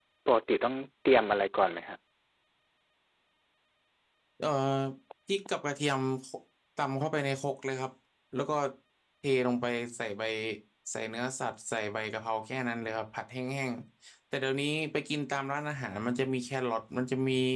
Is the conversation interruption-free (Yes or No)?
Yes